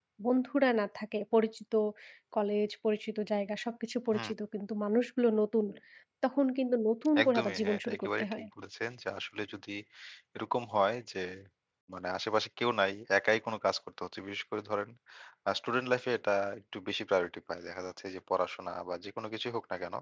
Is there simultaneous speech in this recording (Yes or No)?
Yes